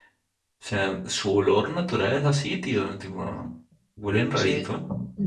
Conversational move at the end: taking over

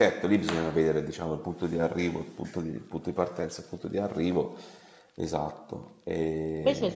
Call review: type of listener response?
taking over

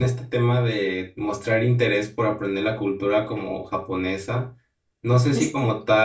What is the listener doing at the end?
listening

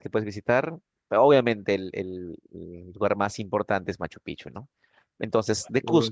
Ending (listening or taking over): listening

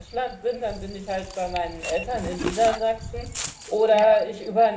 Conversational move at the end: listening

